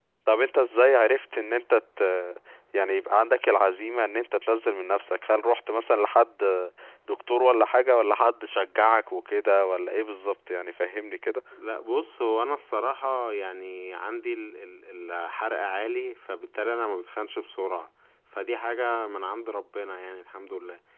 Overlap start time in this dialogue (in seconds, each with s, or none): none